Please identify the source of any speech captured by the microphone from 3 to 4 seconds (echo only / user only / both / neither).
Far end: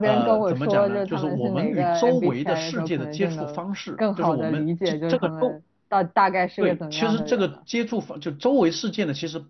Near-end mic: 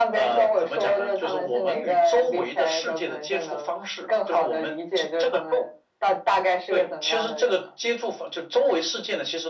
echo only